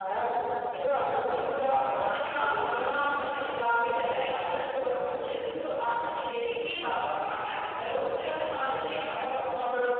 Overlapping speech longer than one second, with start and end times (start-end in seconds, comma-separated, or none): 2.1-3.4